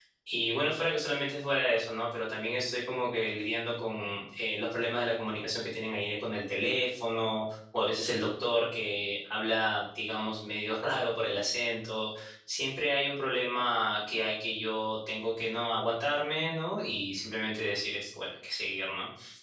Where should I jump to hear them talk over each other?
none

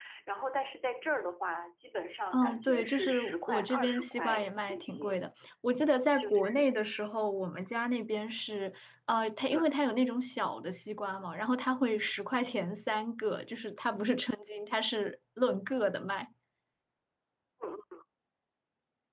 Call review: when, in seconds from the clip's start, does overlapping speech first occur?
2.3 s

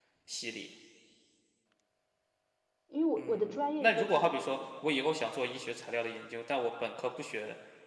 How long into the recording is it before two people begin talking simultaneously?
3.2 s

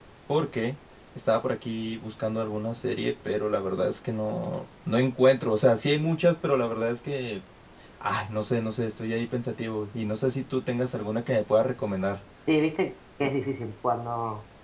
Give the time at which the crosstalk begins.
none

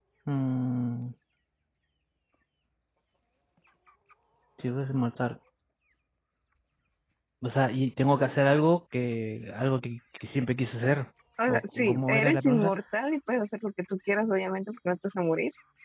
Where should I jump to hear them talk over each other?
11.5 s

